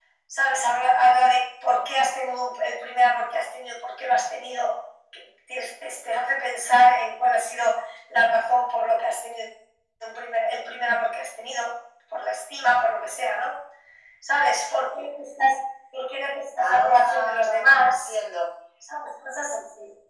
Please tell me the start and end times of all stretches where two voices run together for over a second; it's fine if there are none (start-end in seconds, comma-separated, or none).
16.6-18.1